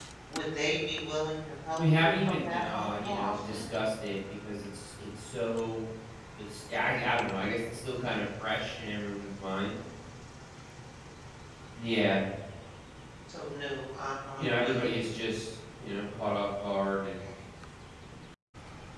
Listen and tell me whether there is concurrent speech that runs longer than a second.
Yes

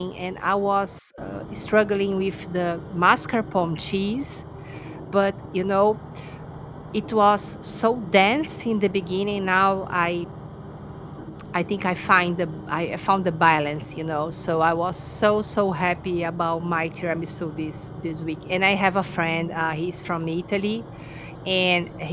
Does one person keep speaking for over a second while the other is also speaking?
No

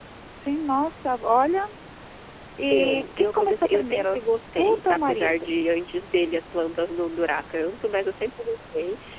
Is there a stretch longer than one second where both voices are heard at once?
Yes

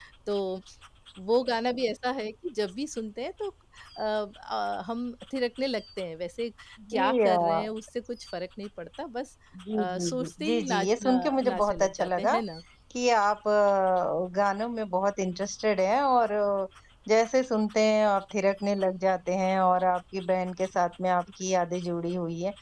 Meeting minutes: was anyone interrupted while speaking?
Yes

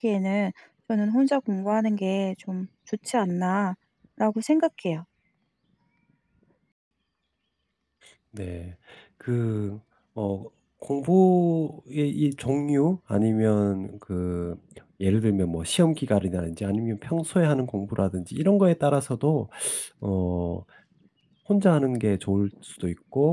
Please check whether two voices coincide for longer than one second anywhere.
No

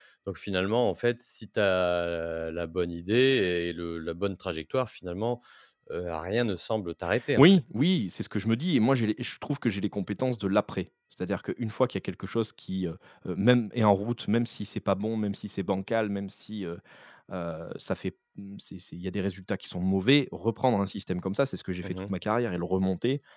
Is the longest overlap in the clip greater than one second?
No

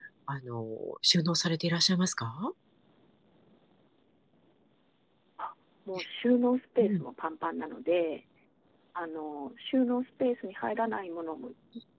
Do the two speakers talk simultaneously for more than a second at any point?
No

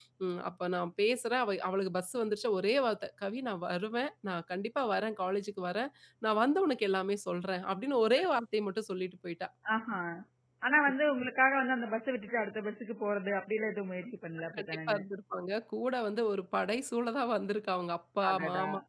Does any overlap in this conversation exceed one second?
No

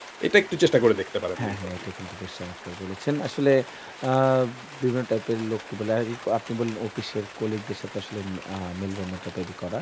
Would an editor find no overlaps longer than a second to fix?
Yes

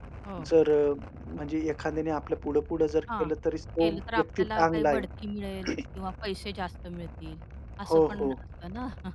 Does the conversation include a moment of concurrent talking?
Yes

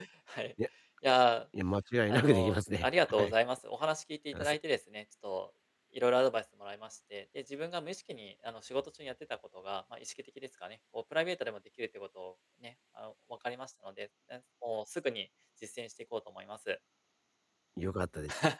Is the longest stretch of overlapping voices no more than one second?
No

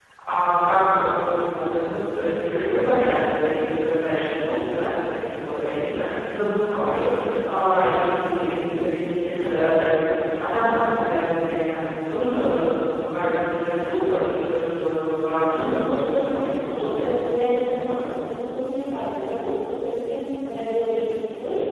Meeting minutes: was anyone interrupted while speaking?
Yes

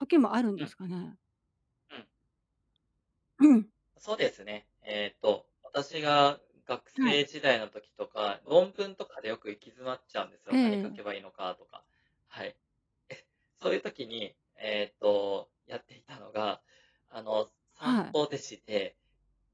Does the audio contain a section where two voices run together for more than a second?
No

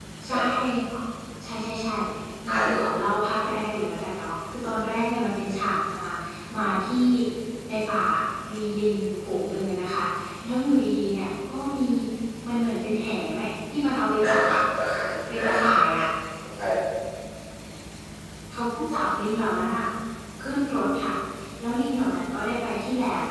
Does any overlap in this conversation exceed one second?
No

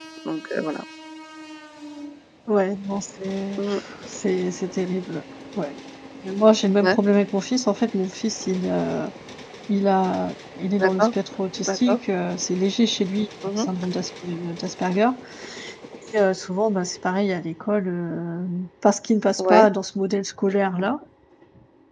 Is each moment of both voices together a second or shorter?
Yes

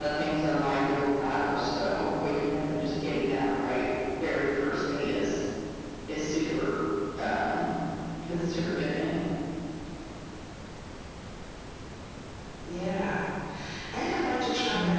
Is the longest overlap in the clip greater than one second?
No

